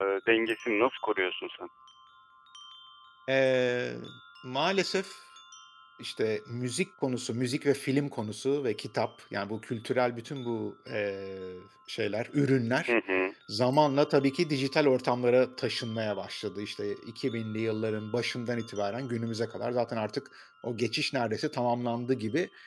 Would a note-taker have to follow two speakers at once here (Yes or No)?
No